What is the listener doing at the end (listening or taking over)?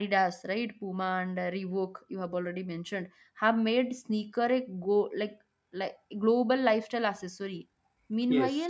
listening